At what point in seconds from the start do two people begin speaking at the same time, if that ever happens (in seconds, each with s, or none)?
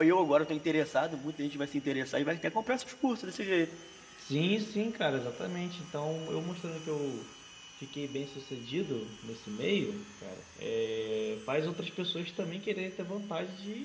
none